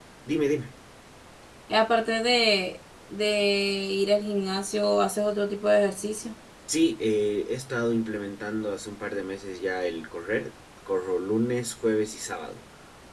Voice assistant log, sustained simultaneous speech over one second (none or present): none